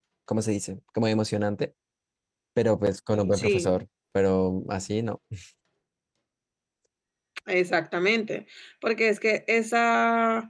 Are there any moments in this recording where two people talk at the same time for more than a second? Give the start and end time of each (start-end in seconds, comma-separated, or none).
none